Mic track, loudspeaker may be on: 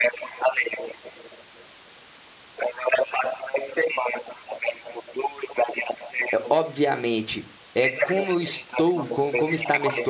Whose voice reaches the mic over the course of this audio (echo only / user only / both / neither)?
both